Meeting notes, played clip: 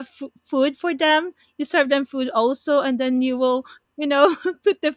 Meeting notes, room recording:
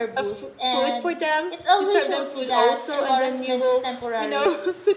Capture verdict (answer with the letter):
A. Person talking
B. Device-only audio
A